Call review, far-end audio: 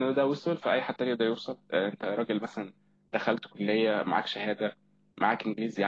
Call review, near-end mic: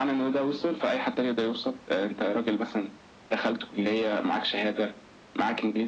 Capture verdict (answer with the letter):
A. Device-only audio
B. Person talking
A